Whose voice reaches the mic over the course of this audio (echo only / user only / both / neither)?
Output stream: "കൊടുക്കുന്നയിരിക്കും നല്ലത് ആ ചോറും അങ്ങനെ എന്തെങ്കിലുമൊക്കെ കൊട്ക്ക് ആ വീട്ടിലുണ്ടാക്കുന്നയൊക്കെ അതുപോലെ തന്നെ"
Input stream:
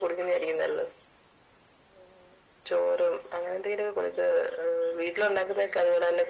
echo only